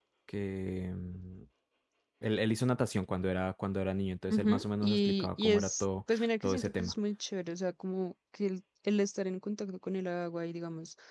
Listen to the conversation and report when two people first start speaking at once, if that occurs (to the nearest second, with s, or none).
4 s